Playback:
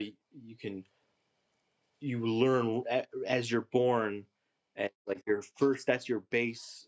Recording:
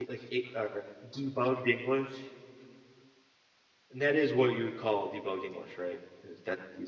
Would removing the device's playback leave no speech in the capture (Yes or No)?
No